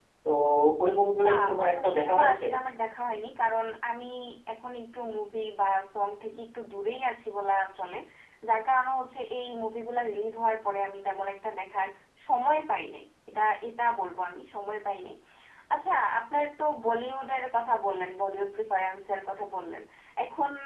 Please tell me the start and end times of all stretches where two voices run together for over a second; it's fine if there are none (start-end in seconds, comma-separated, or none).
1.2-2.4